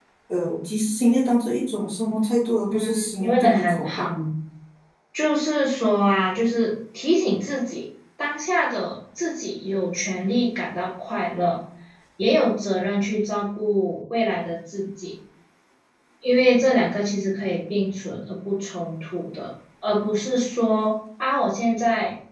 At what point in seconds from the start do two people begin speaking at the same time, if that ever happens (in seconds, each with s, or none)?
2.7 s